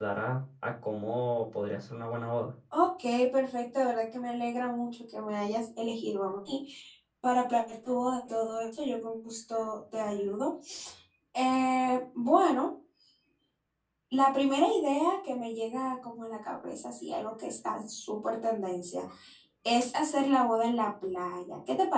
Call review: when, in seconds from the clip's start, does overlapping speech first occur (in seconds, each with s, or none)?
none